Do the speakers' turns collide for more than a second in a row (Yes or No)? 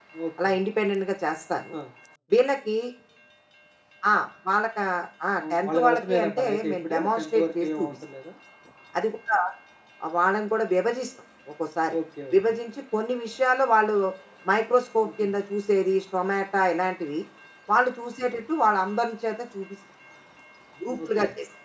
Yes